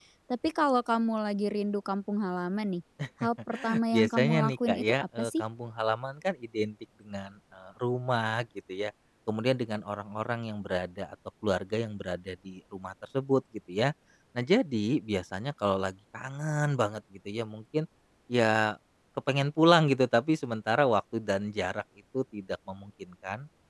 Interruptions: present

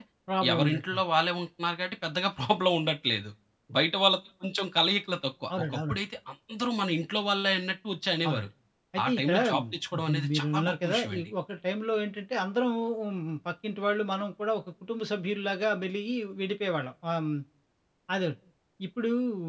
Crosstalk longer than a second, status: present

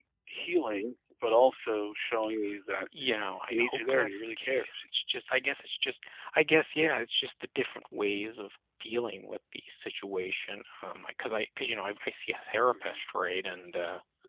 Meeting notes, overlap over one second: present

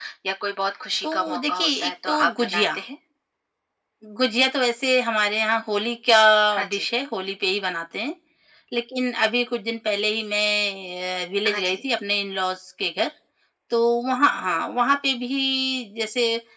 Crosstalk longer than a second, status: present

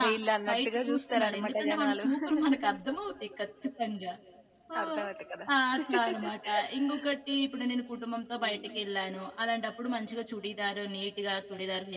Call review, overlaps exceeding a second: present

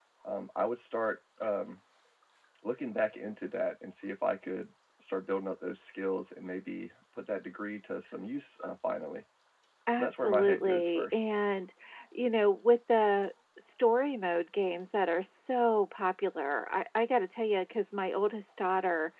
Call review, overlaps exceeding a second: present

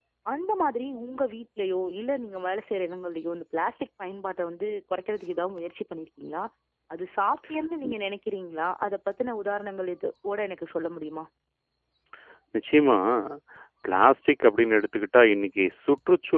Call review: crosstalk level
none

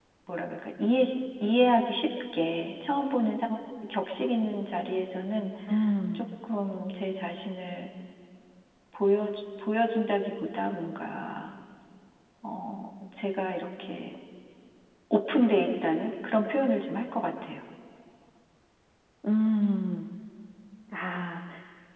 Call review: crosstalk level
none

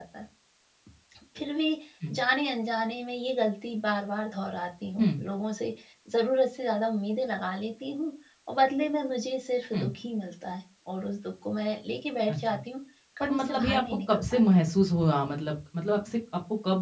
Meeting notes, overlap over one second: present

